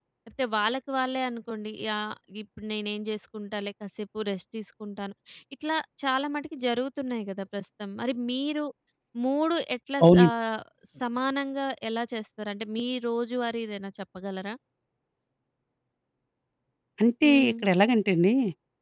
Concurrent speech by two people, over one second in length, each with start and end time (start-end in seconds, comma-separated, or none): none